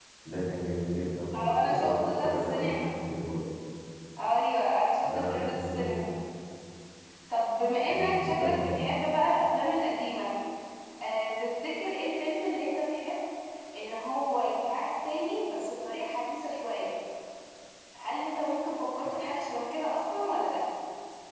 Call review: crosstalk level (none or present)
present